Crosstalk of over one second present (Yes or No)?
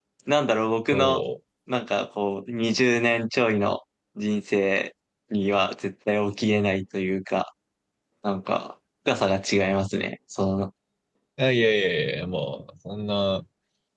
No